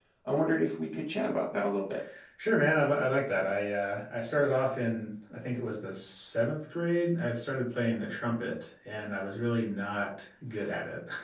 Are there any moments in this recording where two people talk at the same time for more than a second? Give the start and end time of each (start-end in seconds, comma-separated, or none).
none